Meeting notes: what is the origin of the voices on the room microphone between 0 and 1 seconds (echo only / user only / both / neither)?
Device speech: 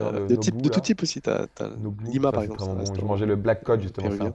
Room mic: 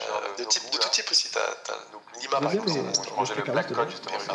echo only